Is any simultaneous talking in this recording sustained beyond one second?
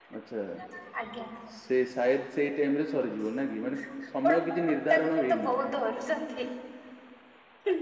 Yes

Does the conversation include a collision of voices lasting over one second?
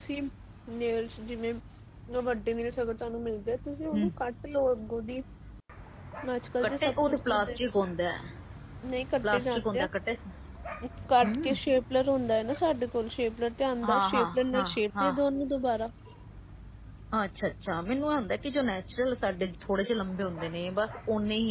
Yes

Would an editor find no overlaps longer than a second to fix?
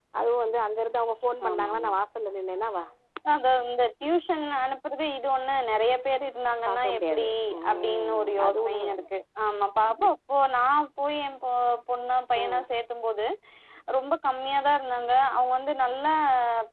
No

